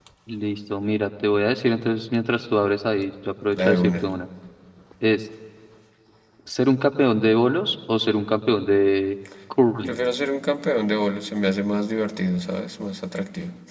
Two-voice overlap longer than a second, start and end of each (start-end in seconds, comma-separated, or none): none